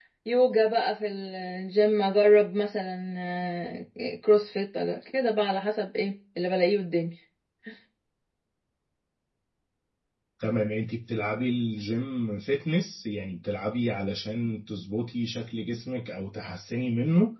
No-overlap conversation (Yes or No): Yes